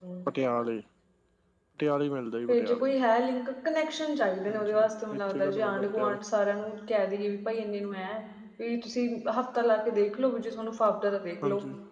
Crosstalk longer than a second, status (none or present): present